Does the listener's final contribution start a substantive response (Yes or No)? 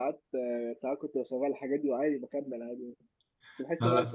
No